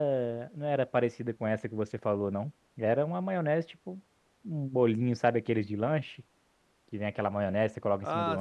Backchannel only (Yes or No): No